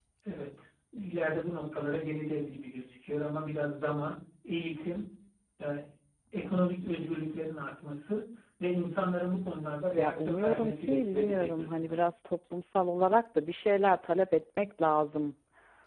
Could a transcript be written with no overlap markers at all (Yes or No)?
No